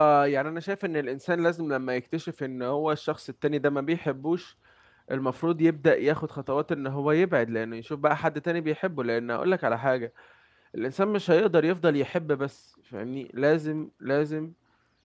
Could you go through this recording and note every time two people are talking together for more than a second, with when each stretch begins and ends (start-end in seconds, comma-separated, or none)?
none